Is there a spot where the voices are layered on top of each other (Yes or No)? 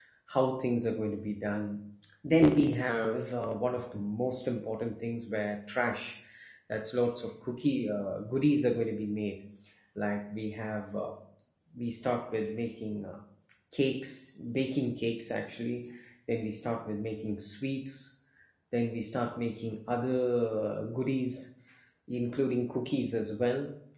No